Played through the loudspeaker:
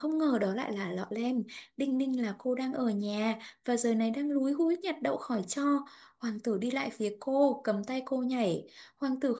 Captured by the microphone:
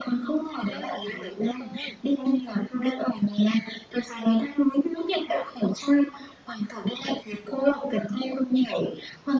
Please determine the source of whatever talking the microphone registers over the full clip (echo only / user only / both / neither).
both